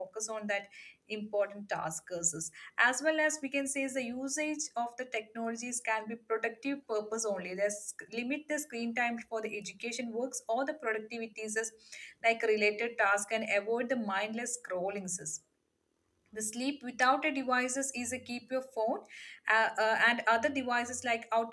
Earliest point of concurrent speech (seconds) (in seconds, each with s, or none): none